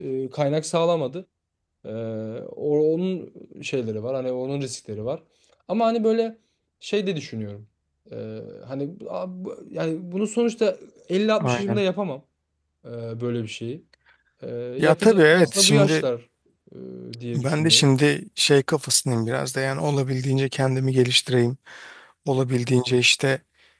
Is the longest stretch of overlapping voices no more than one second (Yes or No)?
No